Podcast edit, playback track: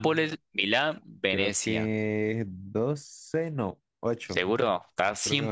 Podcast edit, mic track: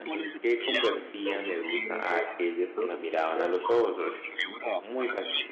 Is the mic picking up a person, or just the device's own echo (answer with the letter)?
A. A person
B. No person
A